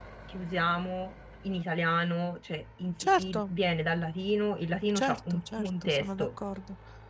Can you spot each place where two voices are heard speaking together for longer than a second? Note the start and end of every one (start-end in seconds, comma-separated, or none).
5.0-6.3